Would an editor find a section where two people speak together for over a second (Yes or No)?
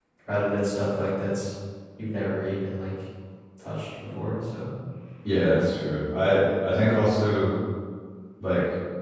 No